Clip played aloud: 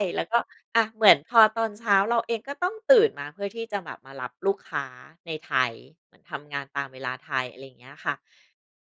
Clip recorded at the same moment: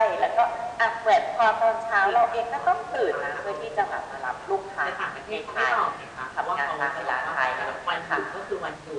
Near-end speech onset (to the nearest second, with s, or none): 2 s